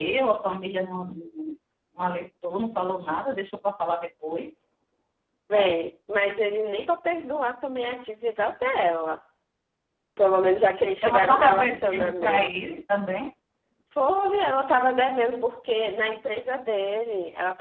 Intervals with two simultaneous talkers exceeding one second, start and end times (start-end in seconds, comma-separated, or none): 11.0-12.5